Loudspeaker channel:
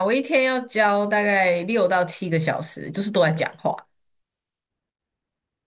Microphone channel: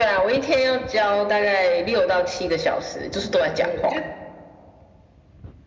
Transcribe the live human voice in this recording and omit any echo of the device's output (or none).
没有，我觉得